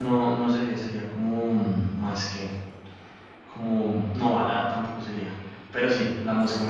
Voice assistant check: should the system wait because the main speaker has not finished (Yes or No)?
Yes